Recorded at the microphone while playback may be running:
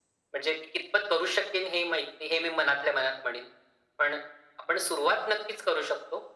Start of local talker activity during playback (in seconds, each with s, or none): none